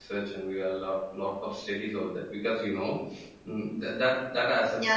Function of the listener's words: taking over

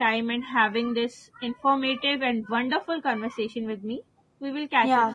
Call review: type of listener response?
taking over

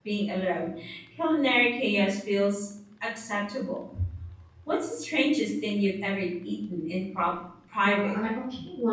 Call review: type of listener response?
taking over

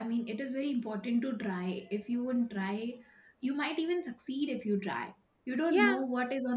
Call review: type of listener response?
listening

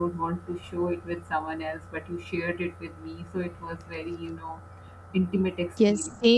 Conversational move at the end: taking over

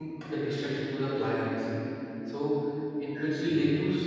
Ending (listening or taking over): listening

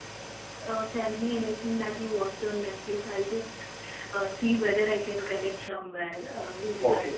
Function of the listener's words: taking over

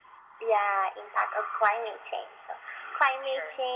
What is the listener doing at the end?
listening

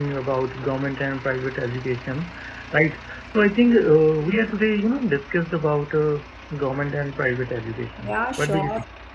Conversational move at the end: taking over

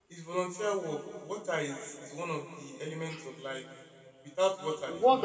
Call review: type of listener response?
taking over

